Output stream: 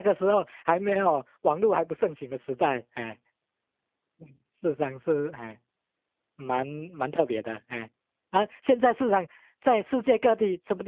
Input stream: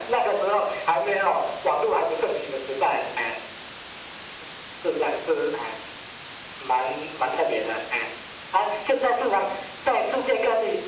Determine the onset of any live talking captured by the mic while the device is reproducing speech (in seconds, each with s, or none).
none